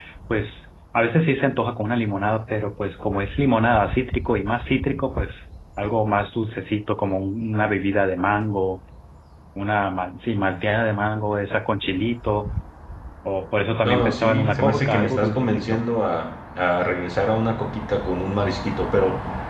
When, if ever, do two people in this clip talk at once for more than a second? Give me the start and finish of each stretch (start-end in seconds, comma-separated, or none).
13.8-15.8